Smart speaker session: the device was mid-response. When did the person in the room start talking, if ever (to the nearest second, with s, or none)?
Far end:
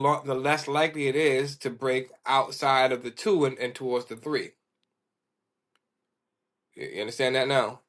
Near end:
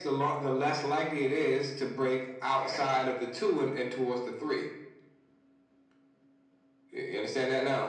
3 s